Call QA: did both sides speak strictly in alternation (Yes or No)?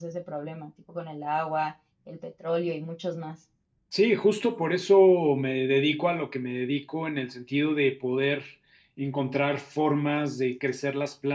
Yes